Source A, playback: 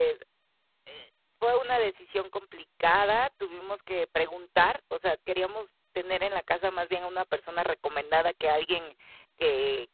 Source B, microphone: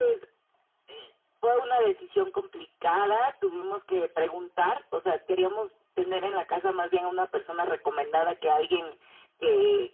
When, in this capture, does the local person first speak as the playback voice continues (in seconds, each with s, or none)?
none